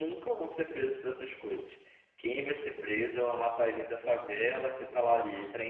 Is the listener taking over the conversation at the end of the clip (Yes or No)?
No